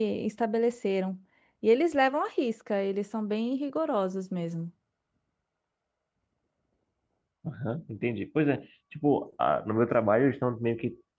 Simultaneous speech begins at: none

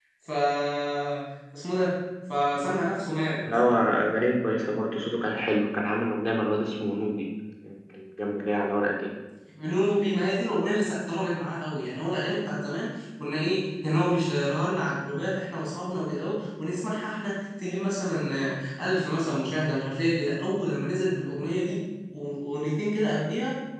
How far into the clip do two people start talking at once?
none

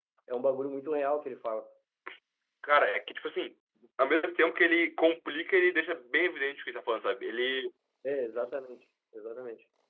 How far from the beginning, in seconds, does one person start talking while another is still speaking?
none

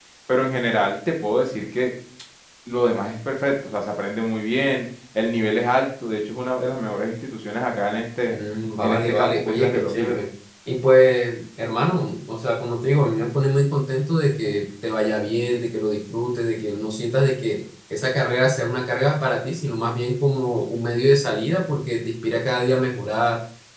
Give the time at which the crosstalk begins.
8.8 s

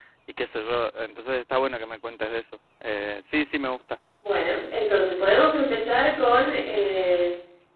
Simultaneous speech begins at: none

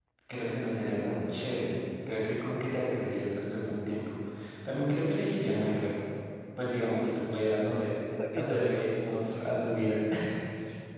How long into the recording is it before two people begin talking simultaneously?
8.2 s

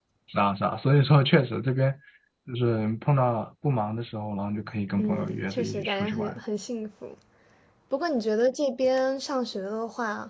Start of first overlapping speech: 5.0 s

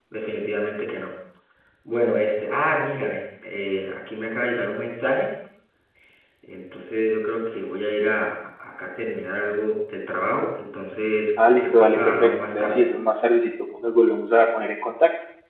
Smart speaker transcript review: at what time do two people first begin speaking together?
11.4 s

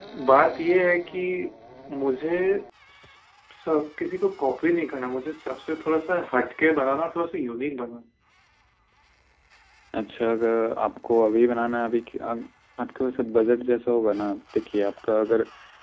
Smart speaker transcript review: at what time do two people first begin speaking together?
none

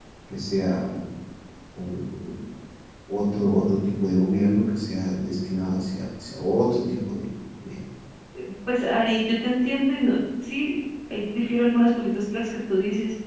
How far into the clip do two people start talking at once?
none

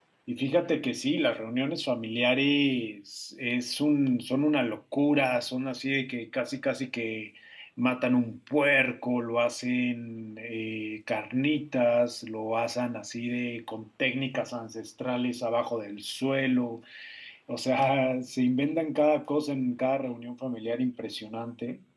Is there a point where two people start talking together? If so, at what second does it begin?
none

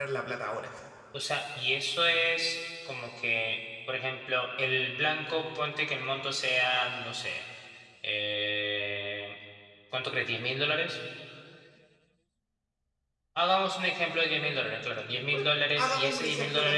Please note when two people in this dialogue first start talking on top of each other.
15.3 s

